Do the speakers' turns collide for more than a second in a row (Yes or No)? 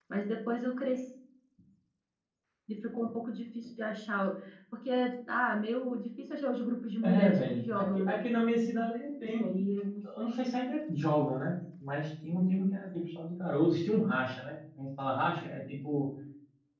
Yes